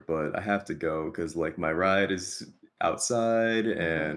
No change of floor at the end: Yes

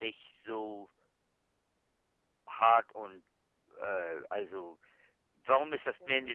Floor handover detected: No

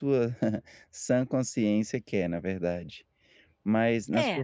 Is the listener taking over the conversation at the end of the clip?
No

